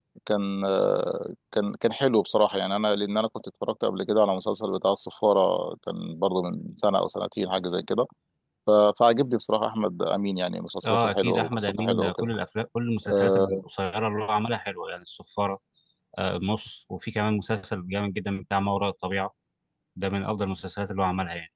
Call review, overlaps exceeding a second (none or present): present